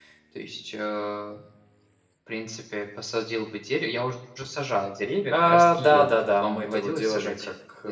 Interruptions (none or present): present